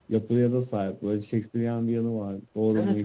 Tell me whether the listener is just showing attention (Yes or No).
No